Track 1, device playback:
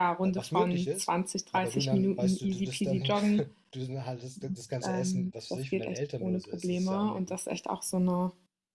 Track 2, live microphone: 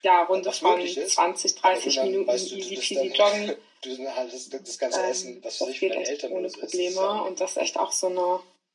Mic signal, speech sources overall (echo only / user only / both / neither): echo only